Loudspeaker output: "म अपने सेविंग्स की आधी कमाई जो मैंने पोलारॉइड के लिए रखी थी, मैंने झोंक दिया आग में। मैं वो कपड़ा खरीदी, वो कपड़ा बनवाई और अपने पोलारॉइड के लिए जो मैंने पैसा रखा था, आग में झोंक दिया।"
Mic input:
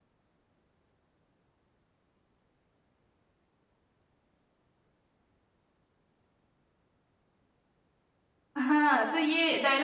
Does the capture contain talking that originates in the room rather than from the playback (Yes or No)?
Yes